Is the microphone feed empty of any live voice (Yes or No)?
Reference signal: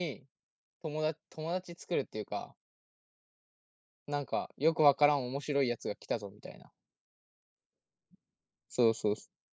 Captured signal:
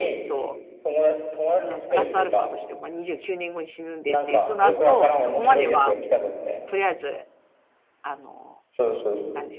No